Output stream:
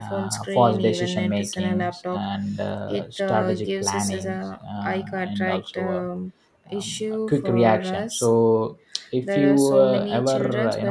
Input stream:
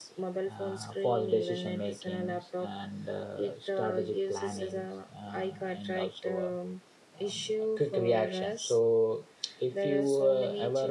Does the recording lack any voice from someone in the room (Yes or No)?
Yes